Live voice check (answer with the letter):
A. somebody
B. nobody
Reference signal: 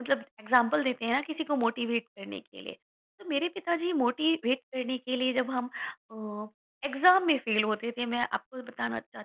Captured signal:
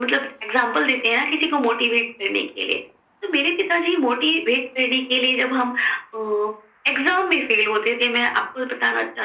B